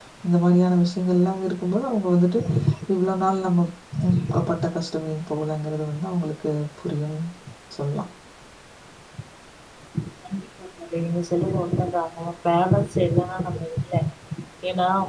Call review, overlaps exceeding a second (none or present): none